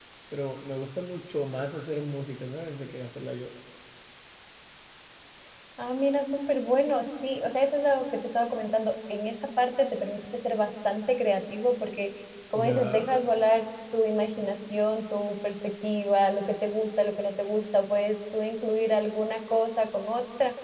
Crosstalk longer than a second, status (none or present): none